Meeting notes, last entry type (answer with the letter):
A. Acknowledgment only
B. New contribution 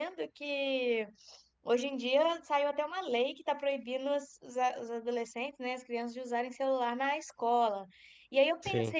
A